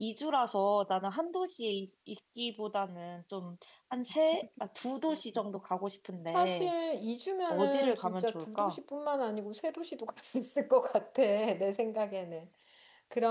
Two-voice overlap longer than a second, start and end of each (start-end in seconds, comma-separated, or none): 7.5-8.8